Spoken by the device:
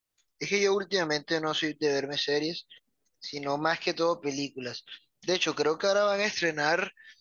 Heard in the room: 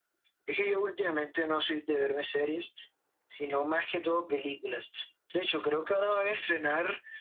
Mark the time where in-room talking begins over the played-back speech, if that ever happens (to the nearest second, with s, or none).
none